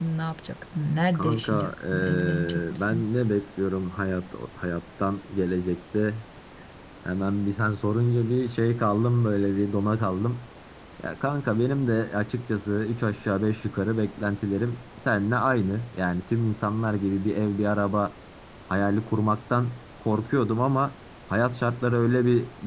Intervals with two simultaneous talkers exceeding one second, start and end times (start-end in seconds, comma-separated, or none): 1.1-3.1